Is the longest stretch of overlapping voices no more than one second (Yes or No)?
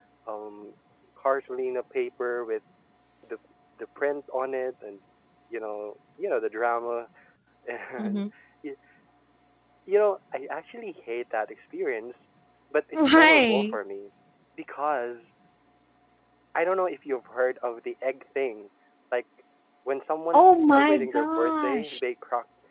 No